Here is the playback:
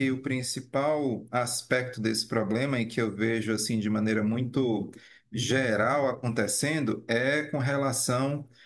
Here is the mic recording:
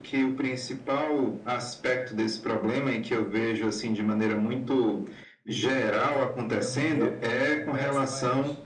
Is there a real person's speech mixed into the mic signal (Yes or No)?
Yes